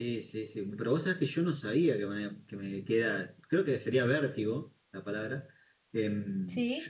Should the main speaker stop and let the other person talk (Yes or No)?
No